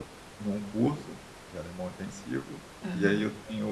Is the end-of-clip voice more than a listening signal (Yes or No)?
No